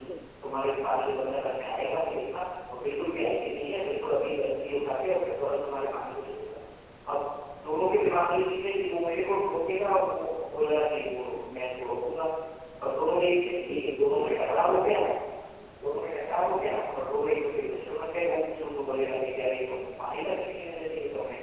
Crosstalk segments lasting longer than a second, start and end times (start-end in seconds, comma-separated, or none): 13.7-15.0